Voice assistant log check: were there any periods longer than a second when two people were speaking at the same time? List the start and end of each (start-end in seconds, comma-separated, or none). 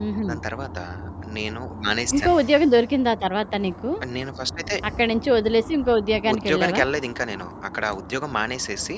none